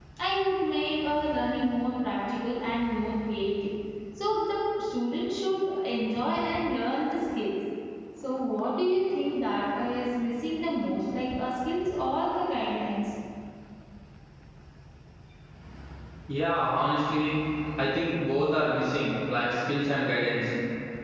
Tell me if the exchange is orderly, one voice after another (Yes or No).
Yes